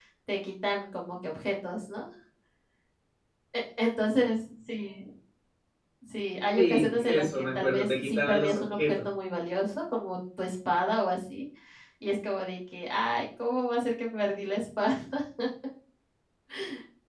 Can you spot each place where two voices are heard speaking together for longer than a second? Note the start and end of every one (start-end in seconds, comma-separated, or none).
6.6-8.9